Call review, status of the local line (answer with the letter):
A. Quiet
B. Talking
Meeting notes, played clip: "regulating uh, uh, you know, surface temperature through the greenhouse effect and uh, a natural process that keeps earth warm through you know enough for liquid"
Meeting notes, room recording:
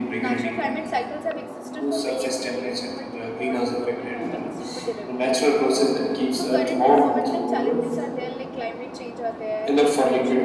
B